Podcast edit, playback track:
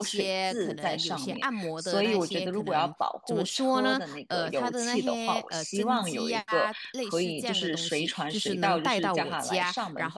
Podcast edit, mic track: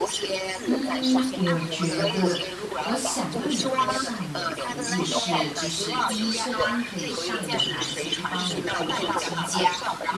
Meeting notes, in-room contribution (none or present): present